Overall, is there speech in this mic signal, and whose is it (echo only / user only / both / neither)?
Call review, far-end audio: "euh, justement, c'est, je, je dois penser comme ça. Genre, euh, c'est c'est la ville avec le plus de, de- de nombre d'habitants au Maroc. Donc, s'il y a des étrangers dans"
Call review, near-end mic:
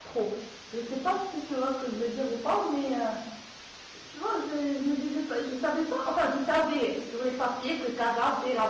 user only